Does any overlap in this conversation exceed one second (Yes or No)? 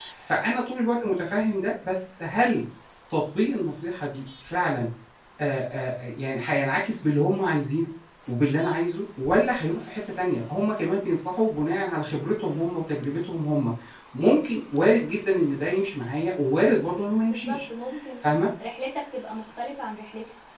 No